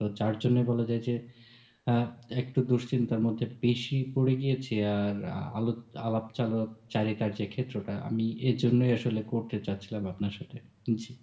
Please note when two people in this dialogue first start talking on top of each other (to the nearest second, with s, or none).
none